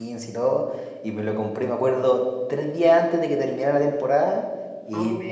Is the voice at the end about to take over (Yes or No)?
No